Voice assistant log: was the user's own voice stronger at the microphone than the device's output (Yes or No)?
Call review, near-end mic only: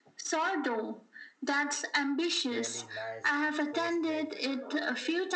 No